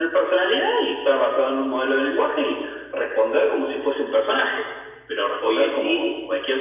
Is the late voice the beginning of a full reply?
No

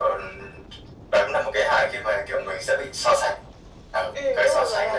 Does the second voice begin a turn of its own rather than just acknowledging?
Yes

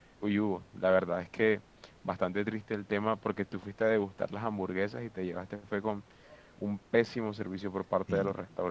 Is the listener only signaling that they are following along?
Yes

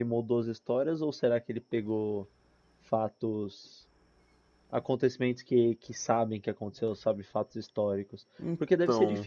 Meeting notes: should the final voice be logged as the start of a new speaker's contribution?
No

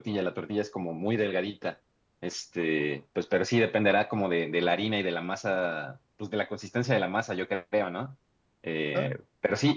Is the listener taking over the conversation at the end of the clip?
No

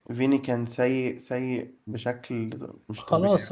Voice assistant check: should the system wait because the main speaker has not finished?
No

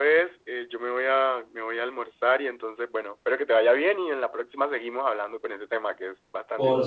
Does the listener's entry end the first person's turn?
Yes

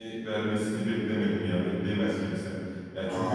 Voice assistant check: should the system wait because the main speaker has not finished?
No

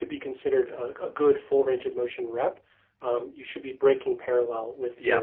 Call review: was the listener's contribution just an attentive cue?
Yes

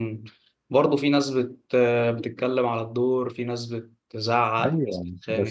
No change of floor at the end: No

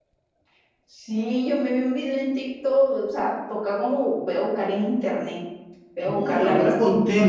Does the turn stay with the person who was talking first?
No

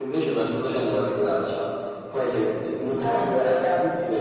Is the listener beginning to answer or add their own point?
No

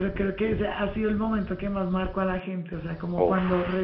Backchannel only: Yes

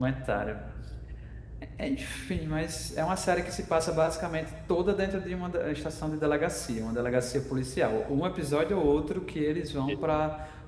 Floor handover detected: No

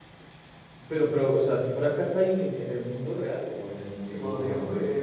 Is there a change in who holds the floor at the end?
Yes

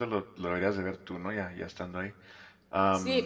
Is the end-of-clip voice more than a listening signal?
Yes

